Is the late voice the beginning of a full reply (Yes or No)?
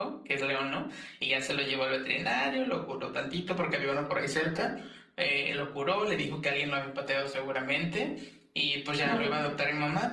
No